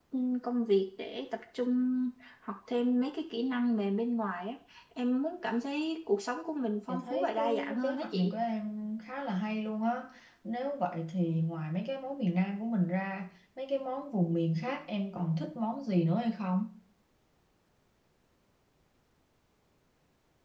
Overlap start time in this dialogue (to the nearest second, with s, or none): 7 s